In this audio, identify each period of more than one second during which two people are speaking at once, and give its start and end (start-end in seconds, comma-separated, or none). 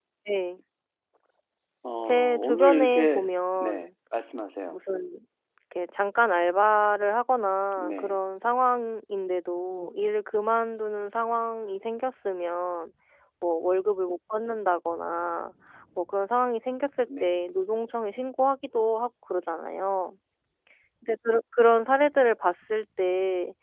2.0-3.2